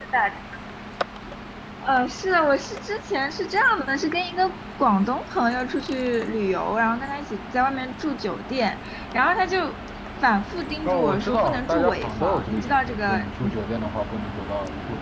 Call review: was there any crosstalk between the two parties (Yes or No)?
Yes